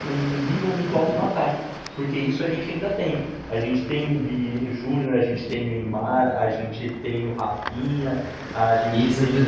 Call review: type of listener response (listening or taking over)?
taking over